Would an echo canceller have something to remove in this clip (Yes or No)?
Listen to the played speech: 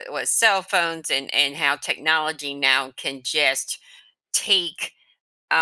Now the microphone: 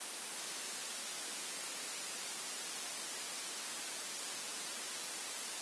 No